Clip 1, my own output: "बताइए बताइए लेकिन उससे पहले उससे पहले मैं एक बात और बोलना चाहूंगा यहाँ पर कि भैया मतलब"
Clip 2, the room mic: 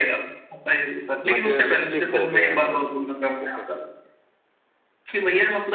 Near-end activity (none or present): present